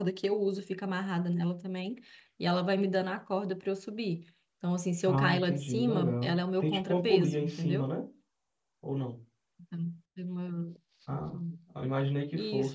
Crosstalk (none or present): present